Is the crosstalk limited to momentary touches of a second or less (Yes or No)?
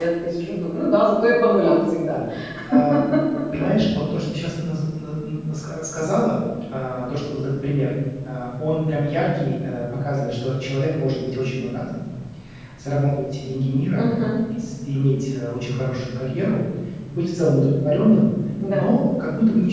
Yes